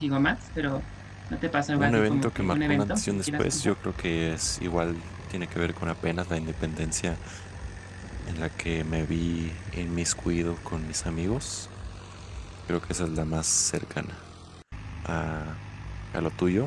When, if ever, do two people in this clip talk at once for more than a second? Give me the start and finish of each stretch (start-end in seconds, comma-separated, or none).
1.8-3.7